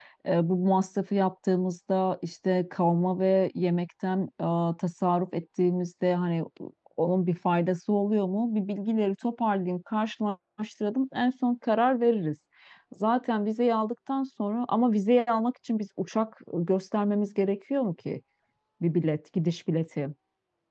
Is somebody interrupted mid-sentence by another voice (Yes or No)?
No